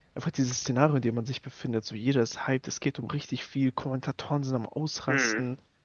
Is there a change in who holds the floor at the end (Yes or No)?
No